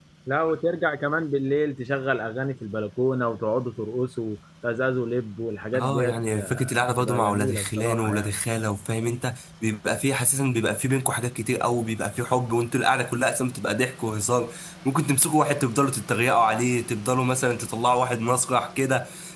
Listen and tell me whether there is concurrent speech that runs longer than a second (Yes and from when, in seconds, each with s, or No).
Yes, from 5.7 s